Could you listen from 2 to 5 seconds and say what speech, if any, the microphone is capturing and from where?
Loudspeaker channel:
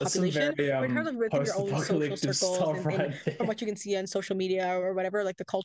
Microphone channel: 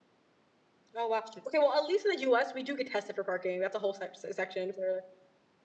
user only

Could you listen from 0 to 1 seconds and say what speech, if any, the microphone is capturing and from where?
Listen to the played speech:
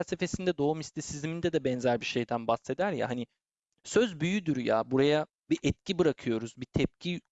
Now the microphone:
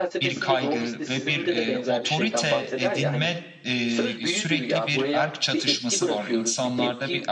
both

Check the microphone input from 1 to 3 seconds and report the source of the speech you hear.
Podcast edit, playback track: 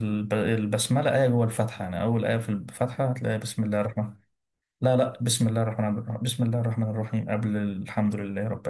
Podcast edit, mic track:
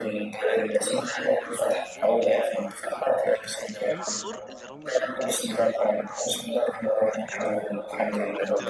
both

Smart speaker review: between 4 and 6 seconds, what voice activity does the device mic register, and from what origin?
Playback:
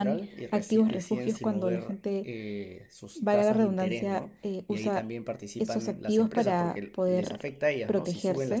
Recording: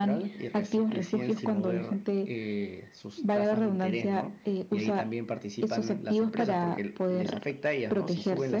echo only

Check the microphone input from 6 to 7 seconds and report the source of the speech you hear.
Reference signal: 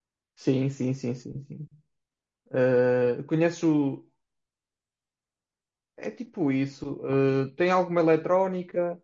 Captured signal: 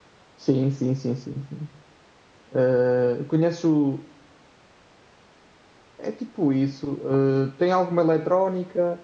echo only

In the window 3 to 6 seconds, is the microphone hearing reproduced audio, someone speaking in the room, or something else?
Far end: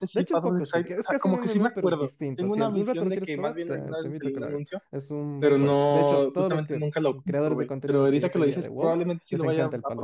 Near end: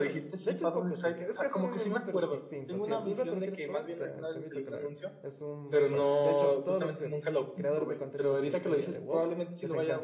echo only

